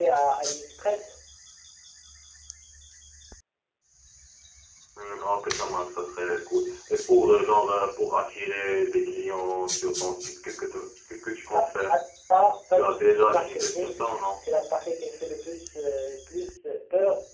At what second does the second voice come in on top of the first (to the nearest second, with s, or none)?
13 s